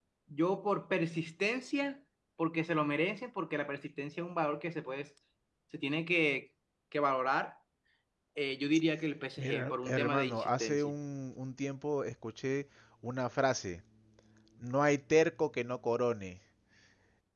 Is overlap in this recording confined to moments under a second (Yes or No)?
No